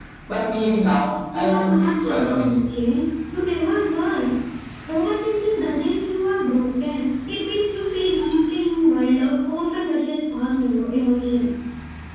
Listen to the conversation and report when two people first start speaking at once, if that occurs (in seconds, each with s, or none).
1.3 s